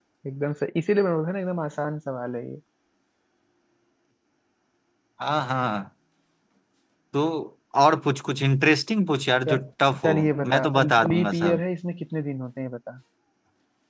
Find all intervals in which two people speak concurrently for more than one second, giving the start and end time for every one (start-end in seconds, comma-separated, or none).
10.0-11.6